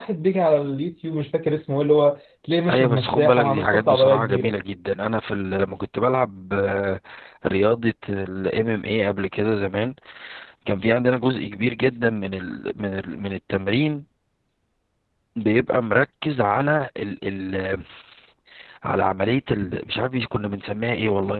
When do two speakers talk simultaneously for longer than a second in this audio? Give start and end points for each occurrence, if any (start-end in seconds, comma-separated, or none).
2.7-4.5